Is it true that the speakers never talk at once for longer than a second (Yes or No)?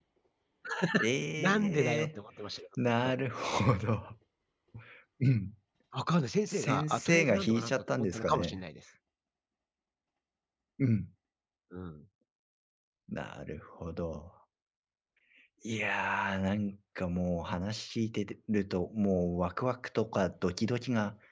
No